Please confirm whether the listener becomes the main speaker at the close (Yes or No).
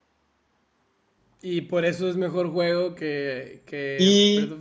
Yes